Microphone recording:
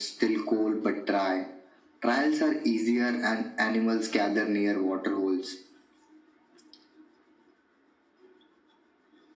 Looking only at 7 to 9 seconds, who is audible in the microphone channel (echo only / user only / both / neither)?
neither